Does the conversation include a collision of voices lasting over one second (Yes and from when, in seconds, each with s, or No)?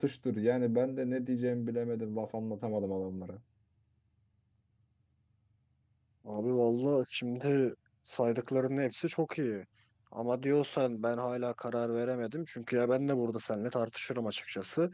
No